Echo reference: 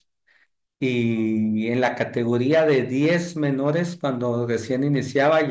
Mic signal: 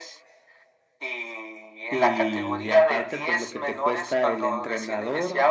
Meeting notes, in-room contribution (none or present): present